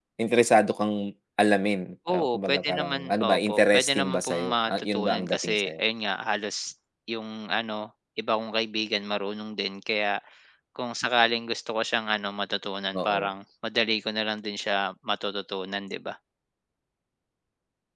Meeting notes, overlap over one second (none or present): present